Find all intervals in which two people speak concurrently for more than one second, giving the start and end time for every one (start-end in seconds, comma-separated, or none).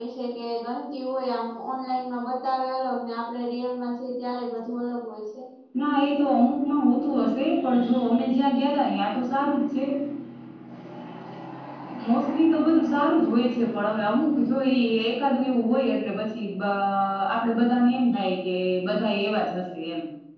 none